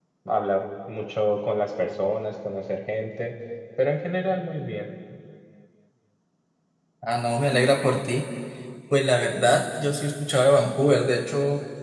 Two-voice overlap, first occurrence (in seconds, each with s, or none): none